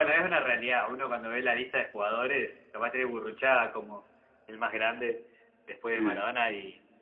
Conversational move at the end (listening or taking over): listening